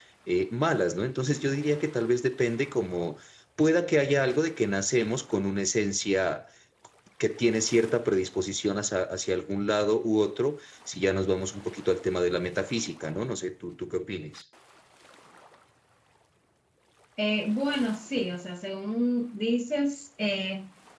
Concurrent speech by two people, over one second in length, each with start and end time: none

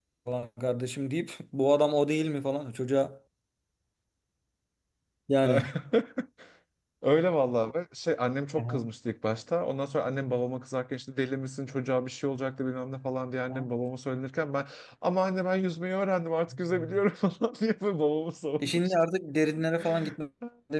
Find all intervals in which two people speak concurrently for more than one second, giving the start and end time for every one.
none

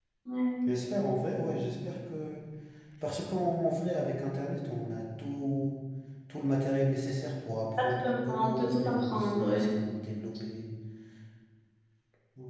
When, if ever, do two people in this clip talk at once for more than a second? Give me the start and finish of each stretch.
7.8-9.6

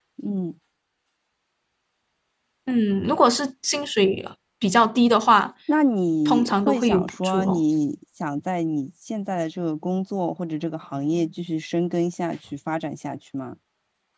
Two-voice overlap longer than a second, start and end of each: 6.2-7.6

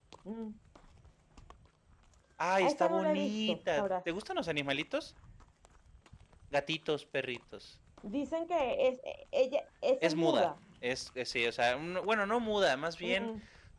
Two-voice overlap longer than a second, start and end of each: 2.6-3.9

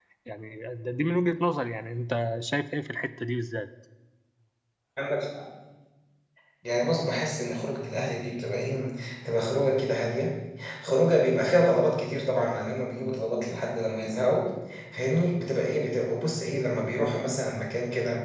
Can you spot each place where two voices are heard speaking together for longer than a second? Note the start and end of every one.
none

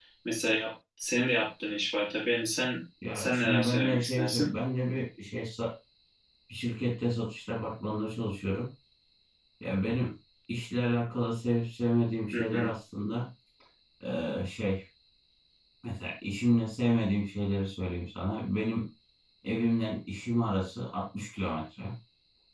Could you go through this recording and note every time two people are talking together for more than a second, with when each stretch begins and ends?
3.1-4.5

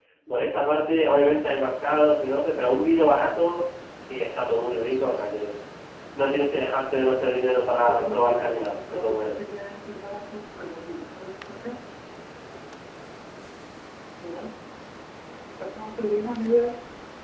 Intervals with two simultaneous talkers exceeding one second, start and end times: 7.7-9.3

